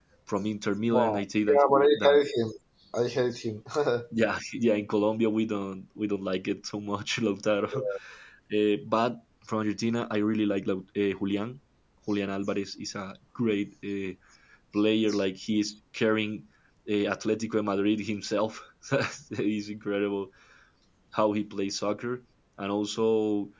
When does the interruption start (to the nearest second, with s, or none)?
1 s